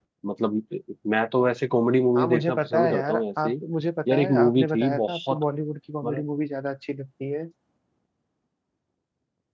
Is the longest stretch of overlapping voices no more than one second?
No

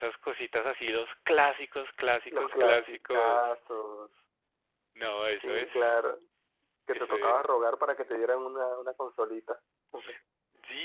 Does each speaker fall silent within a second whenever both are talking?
No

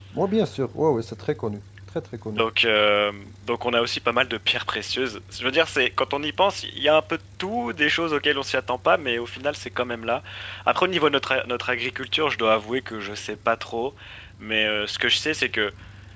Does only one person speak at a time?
Yes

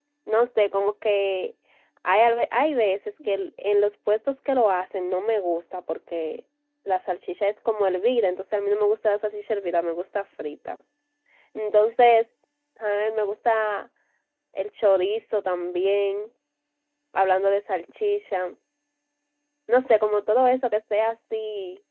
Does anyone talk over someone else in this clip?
No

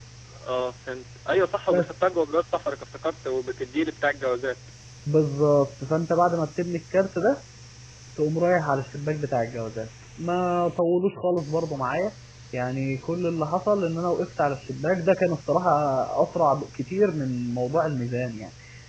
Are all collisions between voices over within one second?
Yes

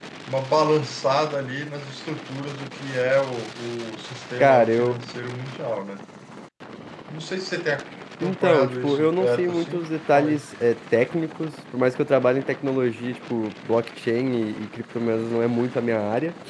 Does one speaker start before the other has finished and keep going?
Yes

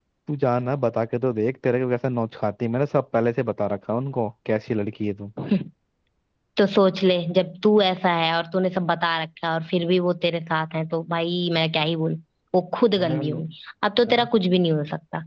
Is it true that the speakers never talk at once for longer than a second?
Yes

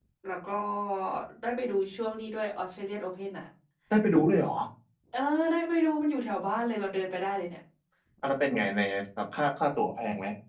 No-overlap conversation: Yes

